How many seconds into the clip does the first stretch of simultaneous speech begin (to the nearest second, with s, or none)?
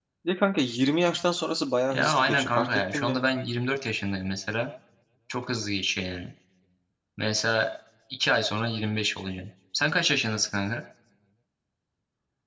2 s